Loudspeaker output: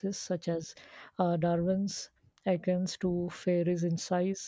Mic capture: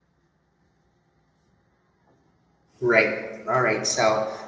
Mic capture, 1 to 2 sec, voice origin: neither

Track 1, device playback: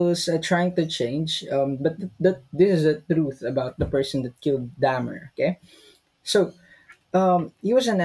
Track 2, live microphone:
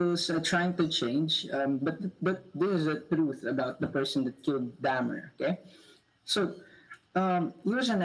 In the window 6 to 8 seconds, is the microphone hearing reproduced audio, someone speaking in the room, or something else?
echo only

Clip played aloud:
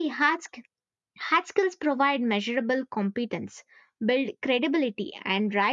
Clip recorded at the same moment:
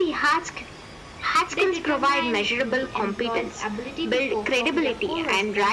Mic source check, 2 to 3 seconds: both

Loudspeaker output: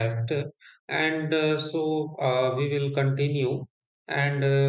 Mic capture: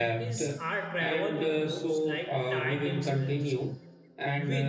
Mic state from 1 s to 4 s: both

